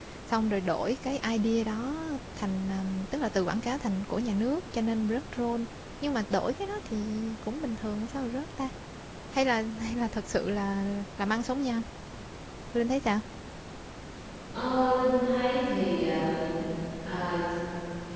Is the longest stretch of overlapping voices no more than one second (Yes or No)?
Yes